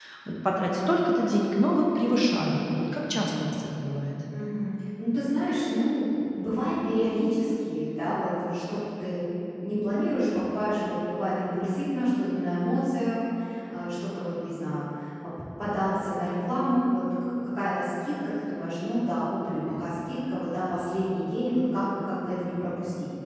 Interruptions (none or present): none